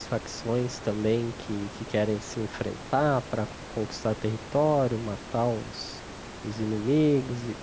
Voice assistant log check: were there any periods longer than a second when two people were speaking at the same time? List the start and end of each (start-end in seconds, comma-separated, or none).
none